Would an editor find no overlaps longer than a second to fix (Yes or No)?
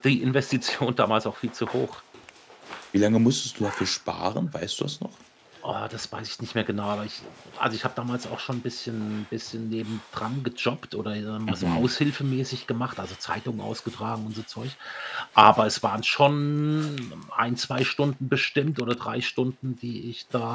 Yes